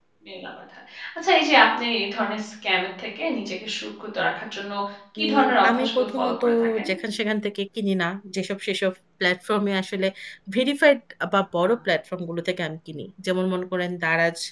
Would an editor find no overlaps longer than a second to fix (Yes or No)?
No